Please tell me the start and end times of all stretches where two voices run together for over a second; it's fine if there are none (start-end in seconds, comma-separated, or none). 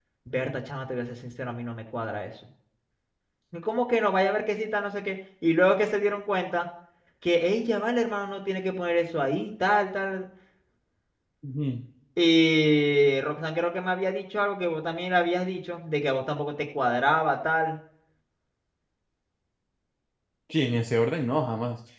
none